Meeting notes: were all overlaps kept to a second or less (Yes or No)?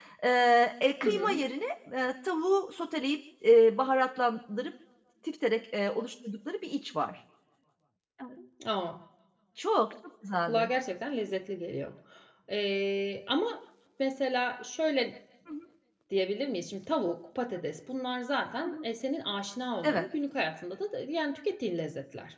Yes